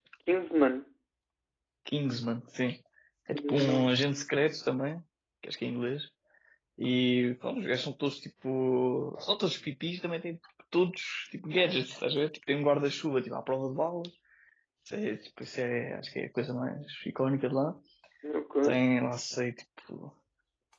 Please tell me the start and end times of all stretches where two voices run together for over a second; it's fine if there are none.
none

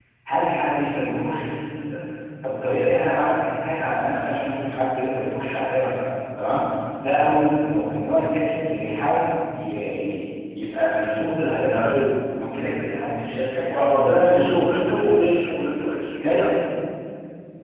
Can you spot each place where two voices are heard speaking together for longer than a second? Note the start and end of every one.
13.8-15.6

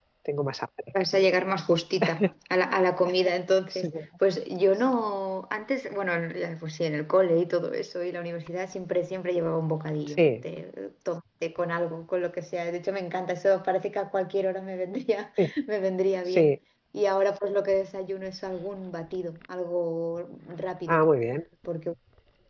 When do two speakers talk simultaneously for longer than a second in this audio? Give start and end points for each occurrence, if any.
none

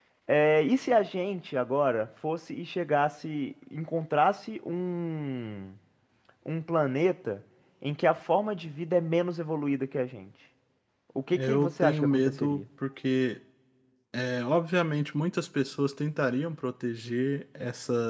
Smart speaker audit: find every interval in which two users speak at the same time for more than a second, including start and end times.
11.3-12.6

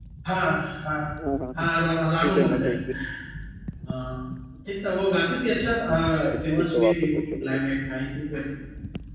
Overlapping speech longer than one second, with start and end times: 6.2-7.6

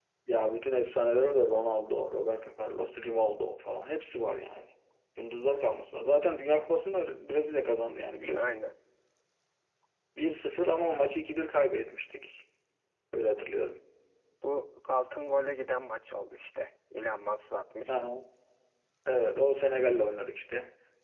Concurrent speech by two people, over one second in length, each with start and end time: none

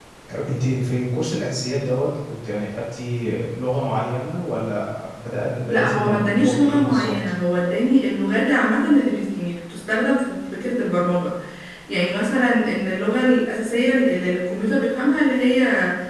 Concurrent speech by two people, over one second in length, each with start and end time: 5.7-7.1

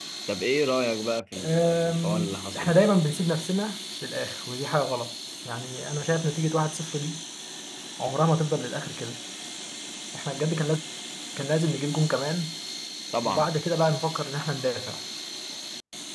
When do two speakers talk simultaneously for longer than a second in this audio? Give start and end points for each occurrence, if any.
1.4-2.8

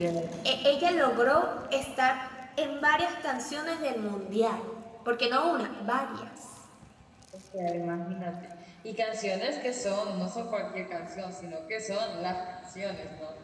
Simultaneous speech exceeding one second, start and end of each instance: none

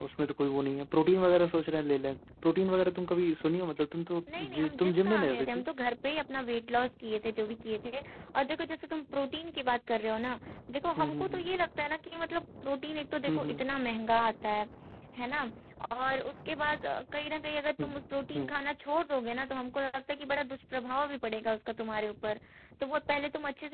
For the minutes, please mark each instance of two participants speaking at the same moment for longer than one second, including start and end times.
4.4-5.6

